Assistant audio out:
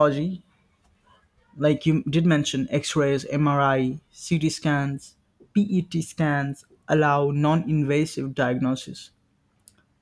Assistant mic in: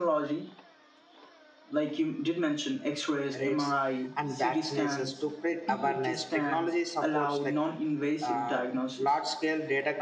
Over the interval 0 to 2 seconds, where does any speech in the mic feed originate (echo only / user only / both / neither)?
echo only